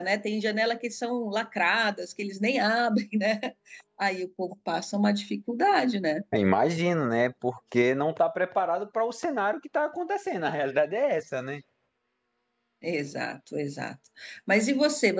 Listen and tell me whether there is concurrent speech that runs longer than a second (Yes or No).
No